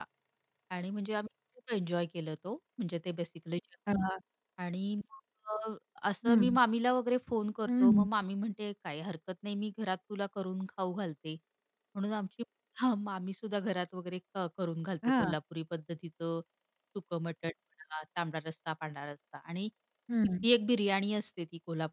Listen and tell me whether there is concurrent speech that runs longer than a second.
No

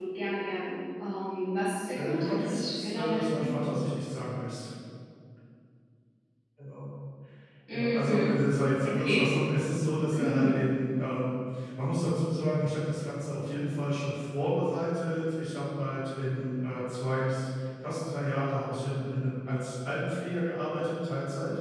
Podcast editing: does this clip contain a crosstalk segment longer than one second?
Yes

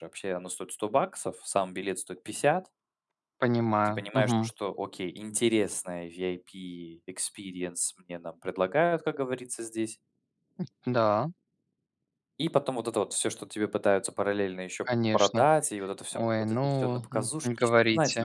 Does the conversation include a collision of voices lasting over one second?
Yes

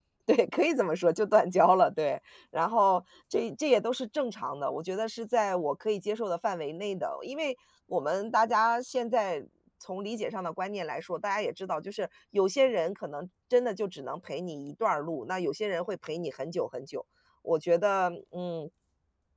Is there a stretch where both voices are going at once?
No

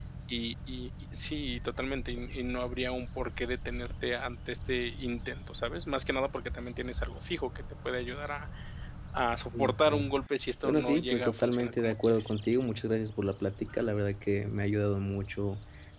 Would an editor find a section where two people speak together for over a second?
Yes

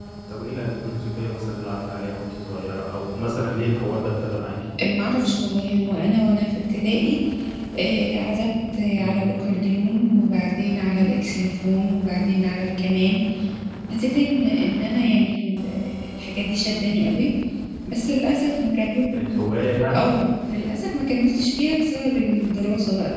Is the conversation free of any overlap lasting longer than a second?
Yes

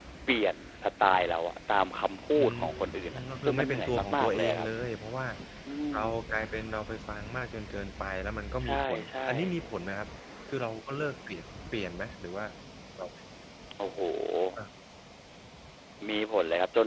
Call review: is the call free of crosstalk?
No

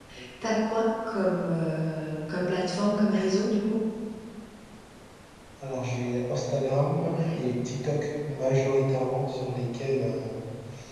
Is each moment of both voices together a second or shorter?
Yes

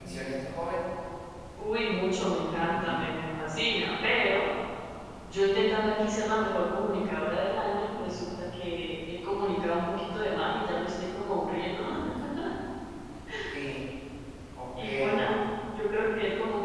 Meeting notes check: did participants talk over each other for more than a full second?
No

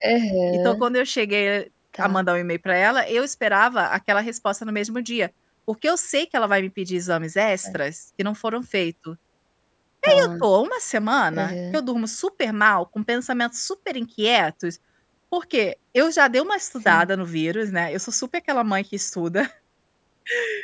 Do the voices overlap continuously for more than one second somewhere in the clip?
No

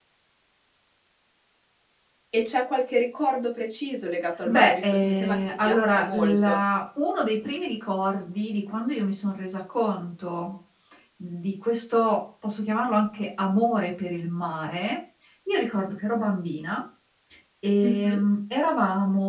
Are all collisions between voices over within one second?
No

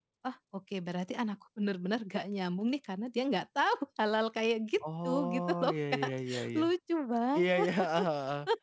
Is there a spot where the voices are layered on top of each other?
Yes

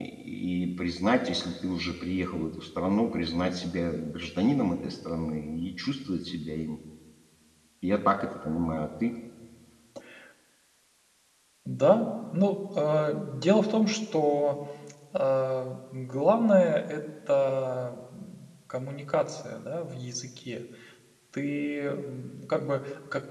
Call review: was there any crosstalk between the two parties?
No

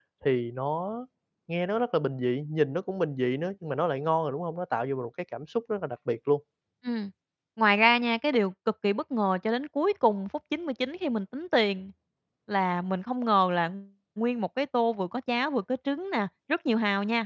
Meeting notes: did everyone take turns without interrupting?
Yes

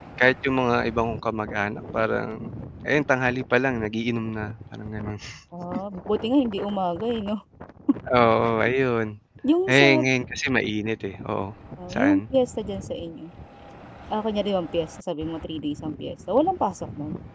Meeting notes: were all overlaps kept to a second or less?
Yes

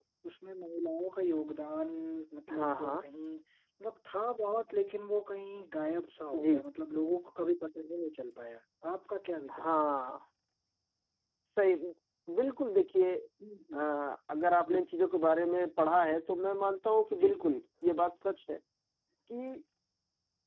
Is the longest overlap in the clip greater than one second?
No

